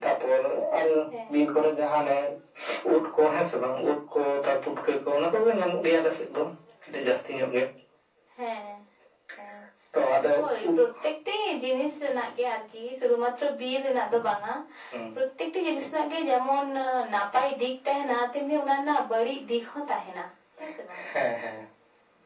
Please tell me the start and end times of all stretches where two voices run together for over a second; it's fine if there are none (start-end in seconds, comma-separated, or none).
none